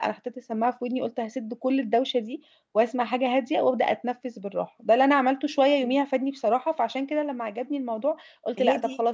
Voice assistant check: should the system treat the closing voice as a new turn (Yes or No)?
No